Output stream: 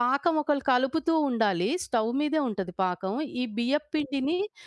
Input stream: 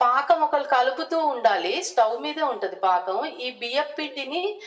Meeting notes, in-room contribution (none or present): none